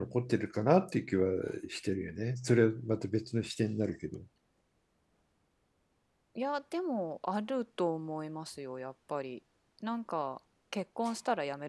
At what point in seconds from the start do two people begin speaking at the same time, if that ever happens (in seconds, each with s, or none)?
none